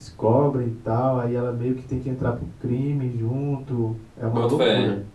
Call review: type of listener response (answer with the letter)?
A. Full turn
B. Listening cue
A